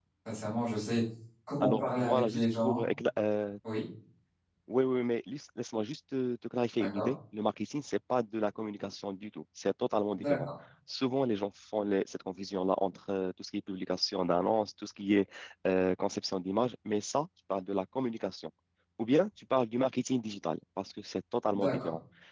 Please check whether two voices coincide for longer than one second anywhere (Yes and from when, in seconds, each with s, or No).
Yes, from 1.6 s